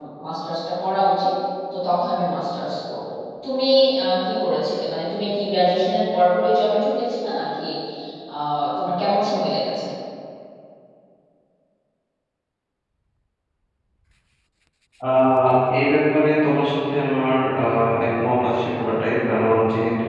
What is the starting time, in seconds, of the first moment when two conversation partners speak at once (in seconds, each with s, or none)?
none